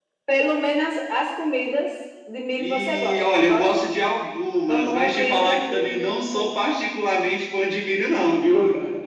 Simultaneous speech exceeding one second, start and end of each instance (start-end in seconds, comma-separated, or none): 2.6-3.9, 4.7-6.0